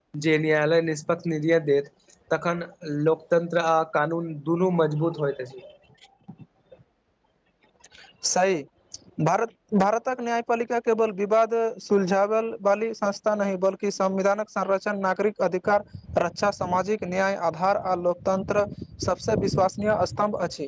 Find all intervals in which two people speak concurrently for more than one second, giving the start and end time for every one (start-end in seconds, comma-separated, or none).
none